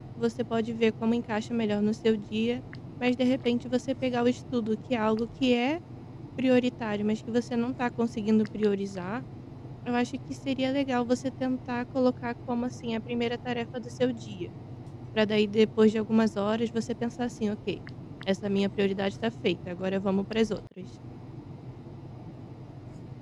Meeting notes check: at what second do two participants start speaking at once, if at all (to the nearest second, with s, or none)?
none